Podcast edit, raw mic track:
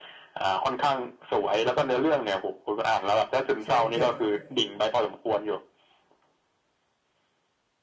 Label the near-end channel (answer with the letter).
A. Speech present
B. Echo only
A